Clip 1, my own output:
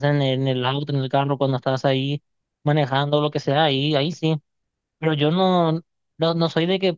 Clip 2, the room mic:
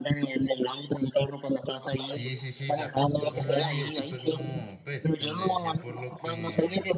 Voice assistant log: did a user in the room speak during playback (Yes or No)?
Yes